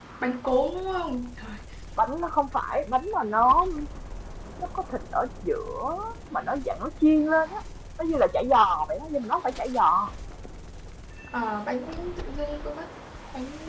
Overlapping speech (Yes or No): No